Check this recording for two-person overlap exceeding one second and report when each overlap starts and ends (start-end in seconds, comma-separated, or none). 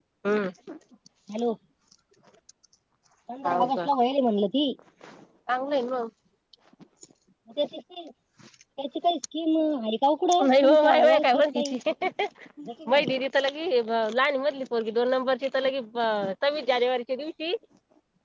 10.5-11.8